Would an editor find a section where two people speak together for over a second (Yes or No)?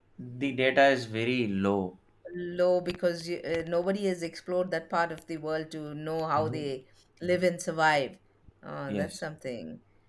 No